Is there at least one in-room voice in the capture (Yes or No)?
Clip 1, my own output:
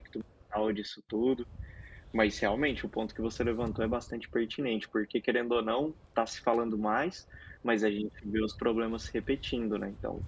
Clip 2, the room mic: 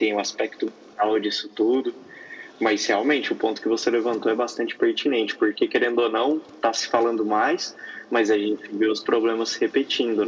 No